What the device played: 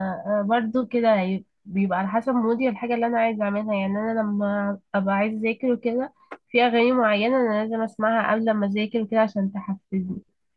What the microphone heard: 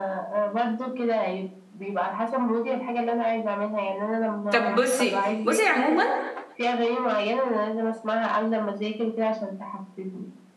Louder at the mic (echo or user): user